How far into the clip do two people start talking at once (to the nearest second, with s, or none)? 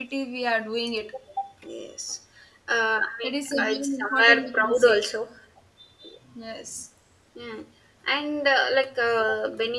3 s